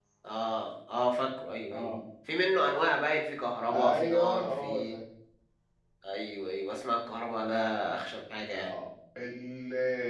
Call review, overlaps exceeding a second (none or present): present